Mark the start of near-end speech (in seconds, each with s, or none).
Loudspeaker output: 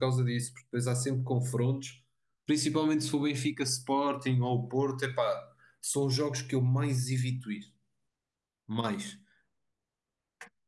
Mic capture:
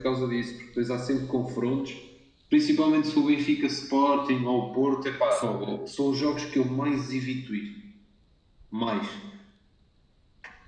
5.3 s